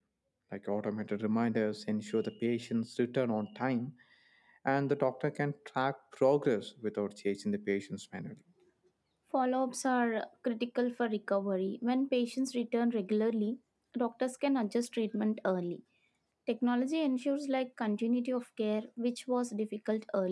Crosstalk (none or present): none